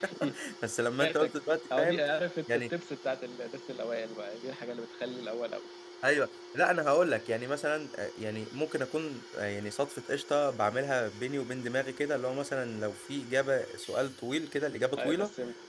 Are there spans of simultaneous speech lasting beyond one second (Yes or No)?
No